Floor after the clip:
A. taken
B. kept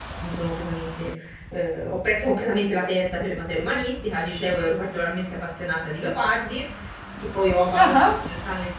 B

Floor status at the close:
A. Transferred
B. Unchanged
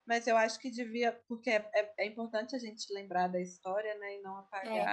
B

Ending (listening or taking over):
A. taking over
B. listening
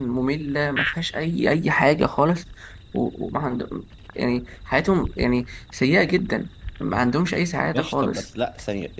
A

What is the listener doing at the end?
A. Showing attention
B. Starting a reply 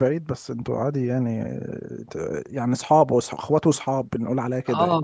B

